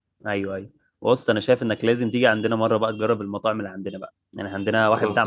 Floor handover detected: No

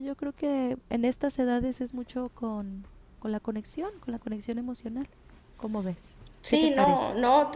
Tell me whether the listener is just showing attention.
No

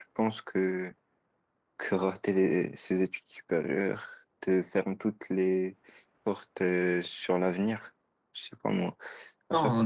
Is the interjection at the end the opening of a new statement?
Yes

